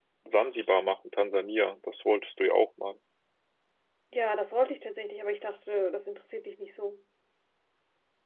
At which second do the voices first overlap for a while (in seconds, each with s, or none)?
none